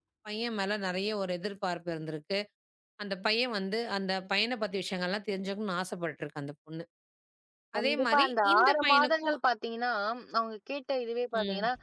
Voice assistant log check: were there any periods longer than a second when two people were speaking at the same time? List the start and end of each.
7.8-9.4

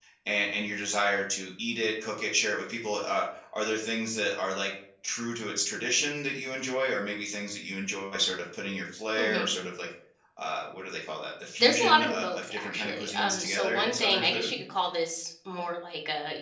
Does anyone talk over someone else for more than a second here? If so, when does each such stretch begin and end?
11.6-14.5

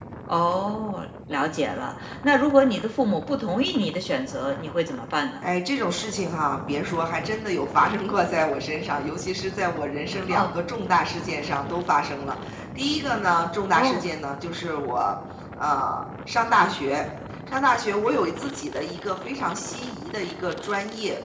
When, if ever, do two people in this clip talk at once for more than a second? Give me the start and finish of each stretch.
none

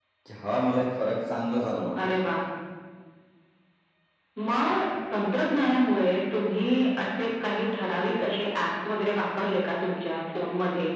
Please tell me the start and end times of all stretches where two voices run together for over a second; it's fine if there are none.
none

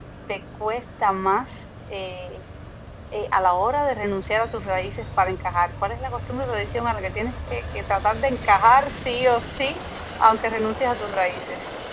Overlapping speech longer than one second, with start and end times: none

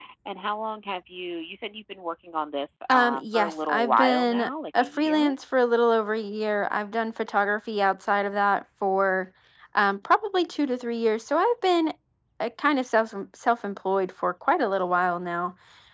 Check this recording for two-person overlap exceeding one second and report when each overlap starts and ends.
2.9-5.3

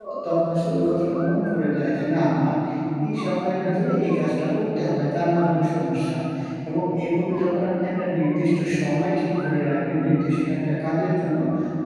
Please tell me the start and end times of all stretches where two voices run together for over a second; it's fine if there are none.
none

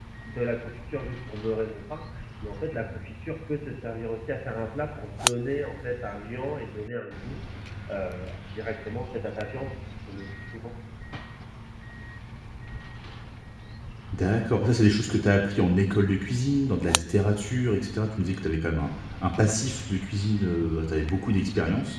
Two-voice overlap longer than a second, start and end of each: none

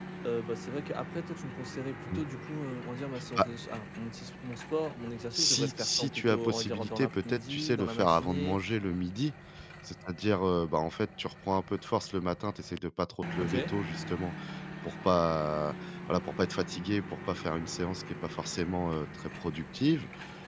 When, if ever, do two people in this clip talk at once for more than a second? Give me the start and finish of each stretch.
5.3-8.6

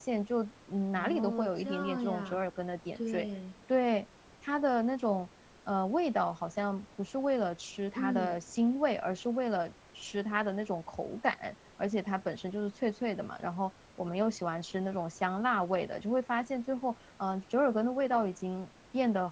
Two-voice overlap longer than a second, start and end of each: 0.9-2.4

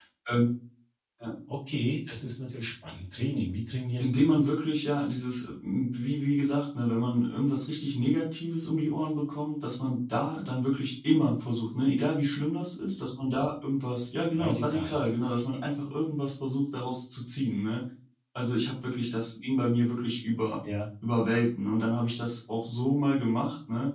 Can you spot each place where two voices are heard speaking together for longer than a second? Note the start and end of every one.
none

